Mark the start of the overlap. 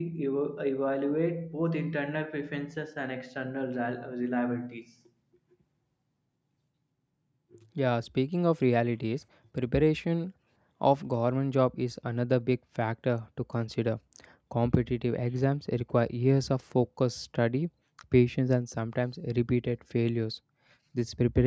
none

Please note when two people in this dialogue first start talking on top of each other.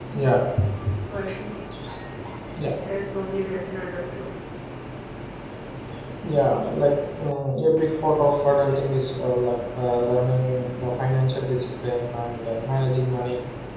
none

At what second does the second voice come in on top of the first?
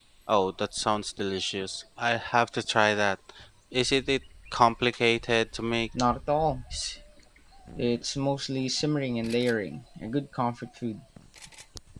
none

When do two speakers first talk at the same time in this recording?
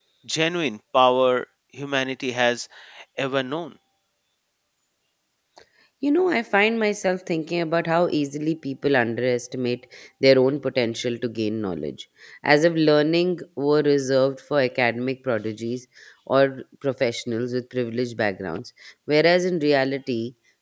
none

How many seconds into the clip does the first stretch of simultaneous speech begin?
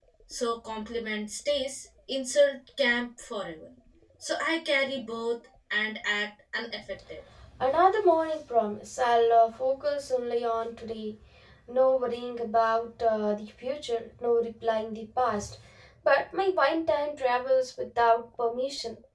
none

